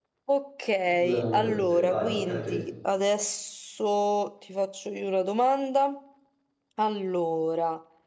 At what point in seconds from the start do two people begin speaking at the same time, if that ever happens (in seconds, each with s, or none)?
0.9 s